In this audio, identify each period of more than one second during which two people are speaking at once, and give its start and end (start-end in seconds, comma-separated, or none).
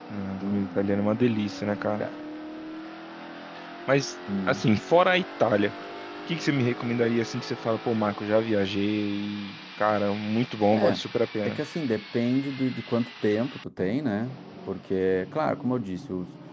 none